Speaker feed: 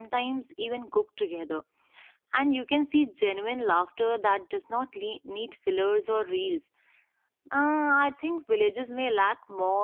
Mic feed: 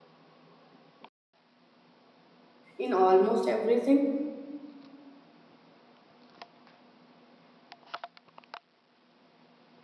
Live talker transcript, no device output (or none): in almost everything